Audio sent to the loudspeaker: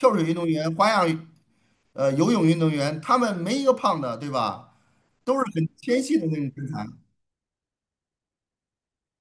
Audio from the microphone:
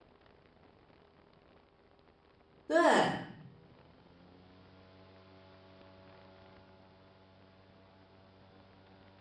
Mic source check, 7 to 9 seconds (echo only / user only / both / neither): neither